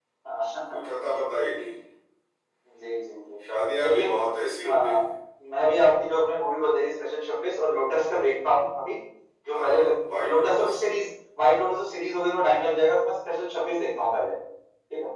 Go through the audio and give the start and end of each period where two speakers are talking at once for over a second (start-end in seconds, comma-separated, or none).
9.5-10.7